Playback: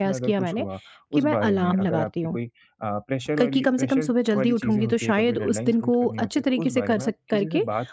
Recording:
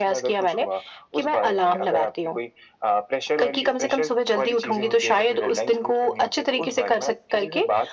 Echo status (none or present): present